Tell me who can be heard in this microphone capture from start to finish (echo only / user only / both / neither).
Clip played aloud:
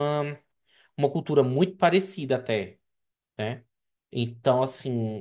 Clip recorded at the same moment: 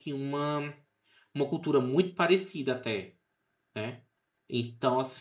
echo only